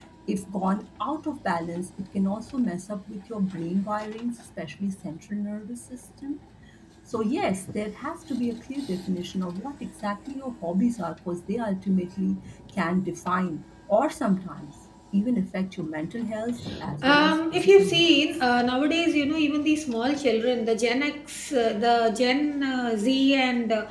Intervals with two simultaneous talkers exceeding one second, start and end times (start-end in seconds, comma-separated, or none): 17.0-18.2